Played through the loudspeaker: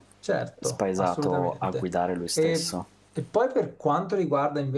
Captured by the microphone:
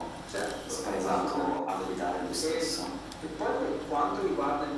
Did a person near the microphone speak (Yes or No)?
No